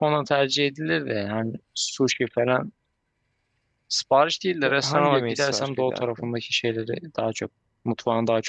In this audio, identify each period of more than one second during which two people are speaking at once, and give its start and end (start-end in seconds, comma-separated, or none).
4.6-6.3